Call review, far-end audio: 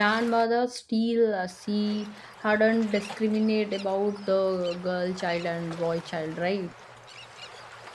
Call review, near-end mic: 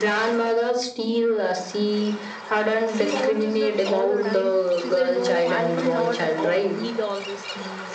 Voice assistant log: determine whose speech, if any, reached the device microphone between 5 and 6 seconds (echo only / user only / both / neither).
both